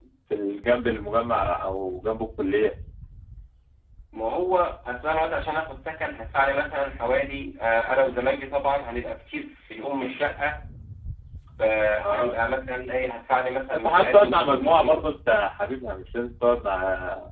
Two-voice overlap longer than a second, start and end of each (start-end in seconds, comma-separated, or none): 13.7-15.0